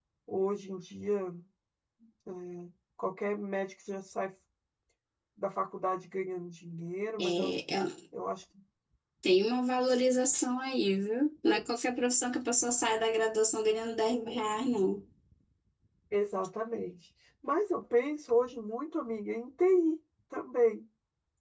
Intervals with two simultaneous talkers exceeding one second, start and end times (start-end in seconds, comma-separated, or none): none